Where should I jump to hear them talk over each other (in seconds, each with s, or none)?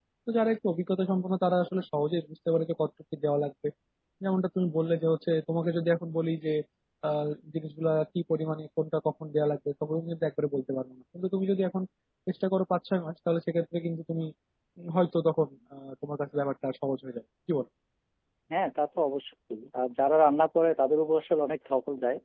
none